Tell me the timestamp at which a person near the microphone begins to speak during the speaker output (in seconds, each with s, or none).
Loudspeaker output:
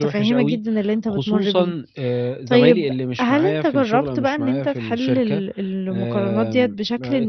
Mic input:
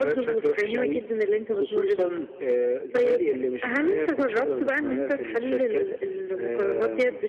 none